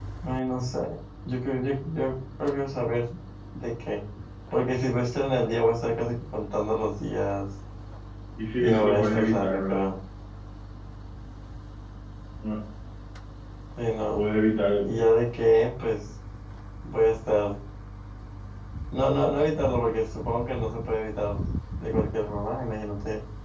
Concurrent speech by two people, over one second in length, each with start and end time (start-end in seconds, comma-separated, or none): 8.6-9.9